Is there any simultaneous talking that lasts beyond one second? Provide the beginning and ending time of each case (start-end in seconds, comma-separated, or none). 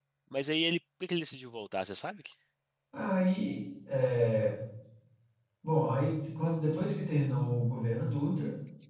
none